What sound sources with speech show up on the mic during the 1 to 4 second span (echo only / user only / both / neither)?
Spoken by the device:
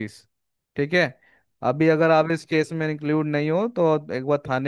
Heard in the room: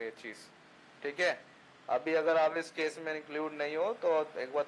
echo only